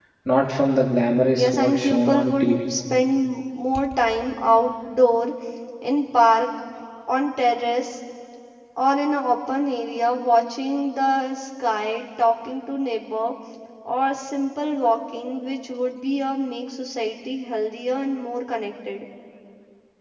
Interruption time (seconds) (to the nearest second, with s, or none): 1 s